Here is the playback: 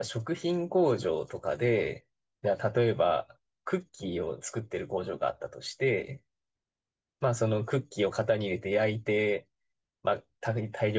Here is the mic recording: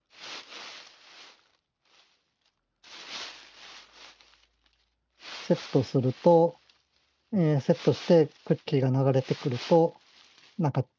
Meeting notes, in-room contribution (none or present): present